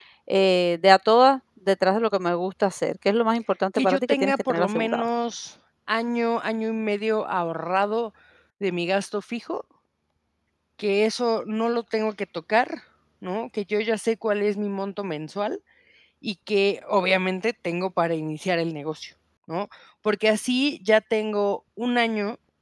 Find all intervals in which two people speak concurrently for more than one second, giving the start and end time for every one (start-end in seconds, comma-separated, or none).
3.8-5.0